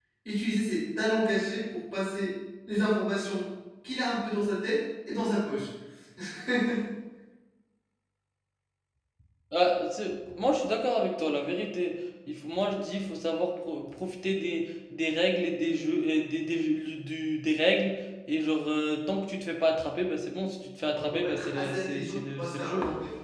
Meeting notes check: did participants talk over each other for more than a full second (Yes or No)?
Yes